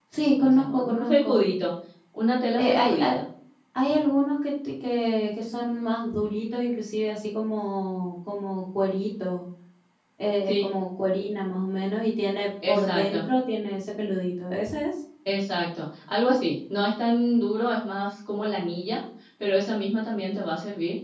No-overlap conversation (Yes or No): No